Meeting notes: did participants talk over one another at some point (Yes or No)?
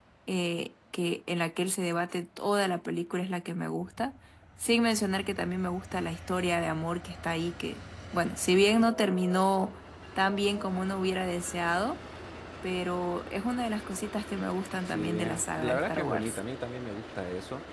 Yes